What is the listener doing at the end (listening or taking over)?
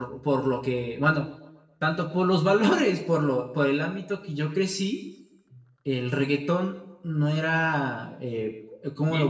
listening